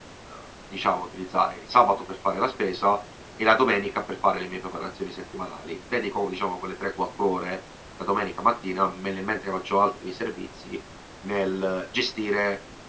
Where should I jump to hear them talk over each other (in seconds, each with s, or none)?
none